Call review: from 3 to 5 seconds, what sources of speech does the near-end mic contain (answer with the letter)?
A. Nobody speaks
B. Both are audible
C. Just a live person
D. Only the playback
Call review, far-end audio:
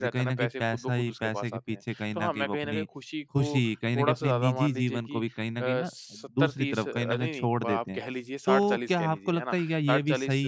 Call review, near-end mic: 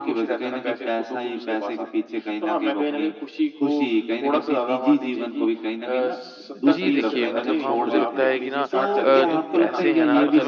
D